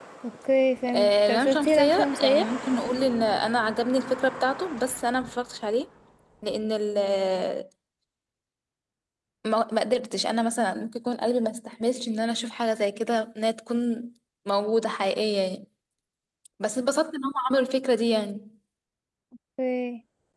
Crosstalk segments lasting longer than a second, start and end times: 0.9-2.5

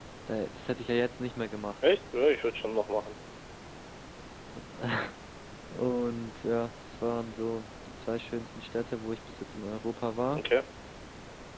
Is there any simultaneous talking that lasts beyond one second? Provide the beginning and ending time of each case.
none

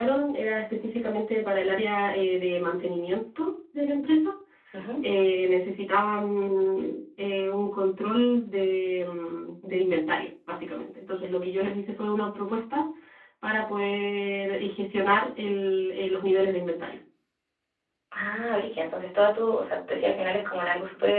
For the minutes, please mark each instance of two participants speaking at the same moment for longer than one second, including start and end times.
none

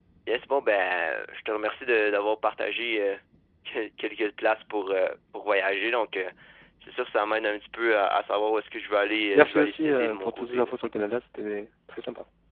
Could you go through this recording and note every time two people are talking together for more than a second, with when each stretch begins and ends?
9.3-10.7

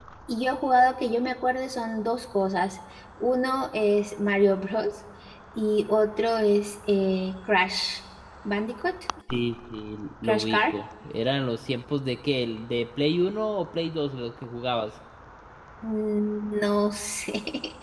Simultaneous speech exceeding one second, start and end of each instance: none

